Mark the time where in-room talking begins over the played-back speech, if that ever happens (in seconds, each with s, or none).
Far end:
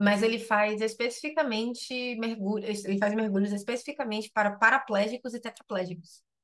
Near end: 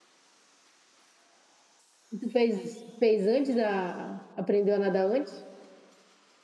2.2 s